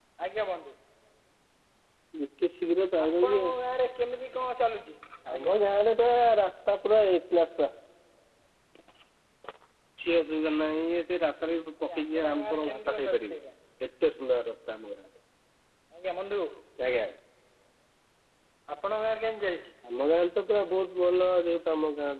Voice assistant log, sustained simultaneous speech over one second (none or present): present